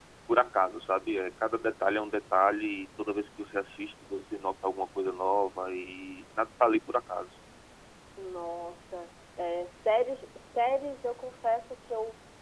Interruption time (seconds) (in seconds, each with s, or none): none